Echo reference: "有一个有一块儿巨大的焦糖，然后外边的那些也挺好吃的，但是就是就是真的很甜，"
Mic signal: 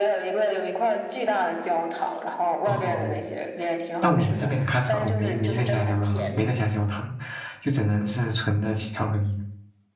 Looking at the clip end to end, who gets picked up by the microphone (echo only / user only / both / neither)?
both